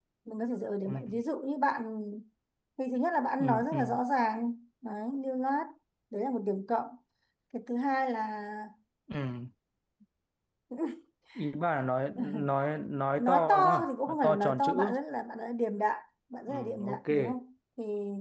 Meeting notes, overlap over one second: present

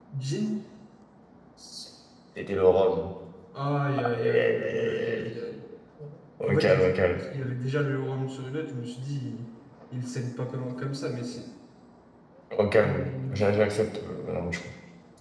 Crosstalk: present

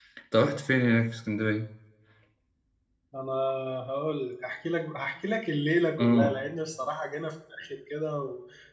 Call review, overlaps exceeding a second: none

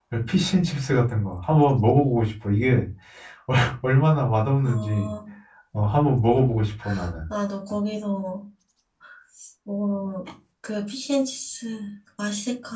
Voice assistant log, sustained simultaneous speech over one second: none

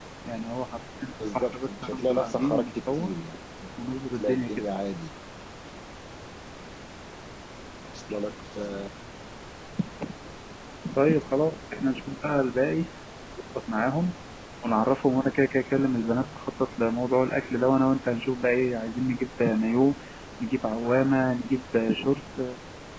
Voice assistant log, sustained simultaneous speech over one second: present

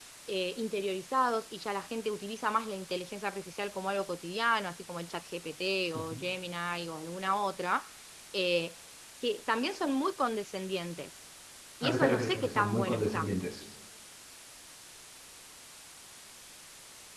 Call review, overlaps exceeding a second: present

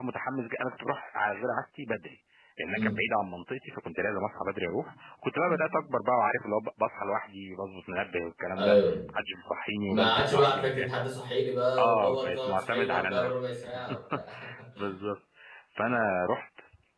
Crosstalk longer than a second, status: present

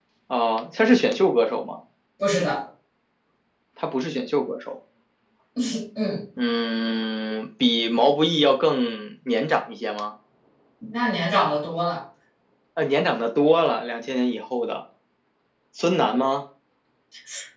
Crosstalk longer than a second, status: none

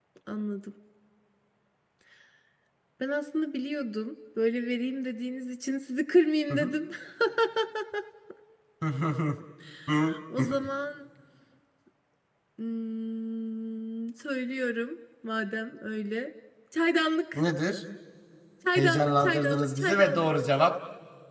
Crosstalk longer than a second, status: present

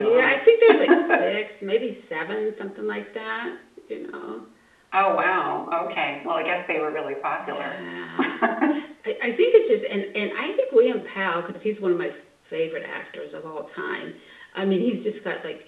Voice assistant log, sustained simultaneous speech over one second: none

